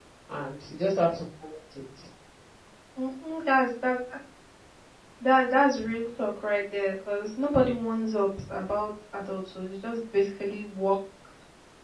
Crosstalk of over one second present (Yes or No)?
No